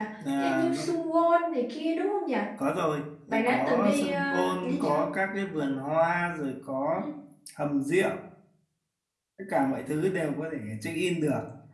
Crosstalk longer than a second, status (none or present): present